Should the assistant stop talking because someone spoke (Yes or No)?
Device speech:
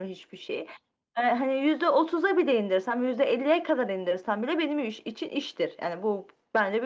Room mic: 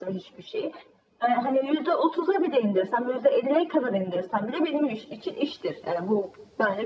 No